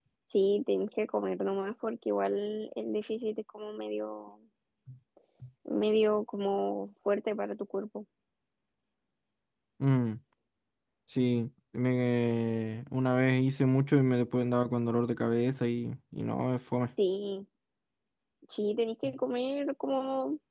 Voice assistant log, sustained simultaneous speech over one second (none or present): none